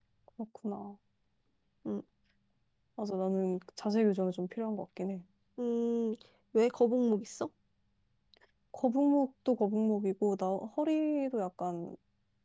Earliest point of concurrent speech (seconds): none

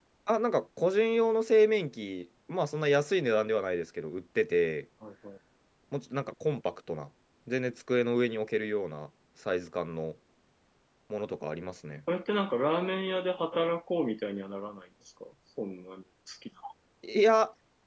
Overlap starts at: none

